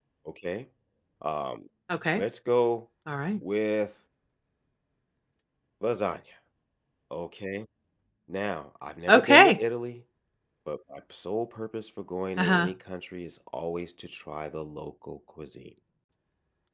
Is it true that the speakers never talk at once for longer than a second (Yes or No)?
Yes